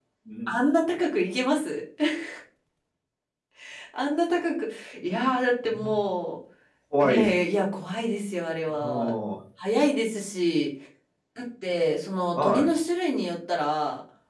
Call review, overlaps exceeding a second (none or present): none